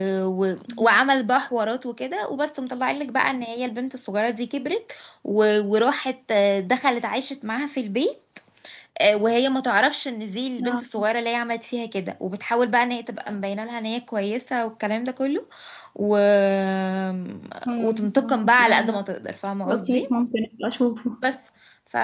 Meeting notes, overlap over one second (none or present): present